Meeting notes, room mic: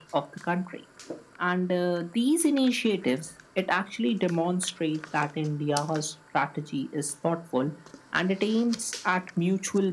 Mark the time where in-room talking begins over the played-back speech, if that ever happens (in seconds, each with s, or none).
none